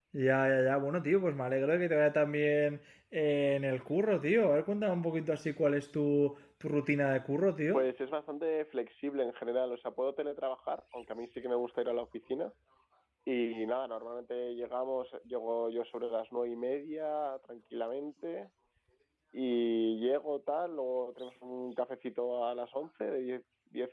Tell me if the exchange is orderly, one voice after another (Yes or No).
Yes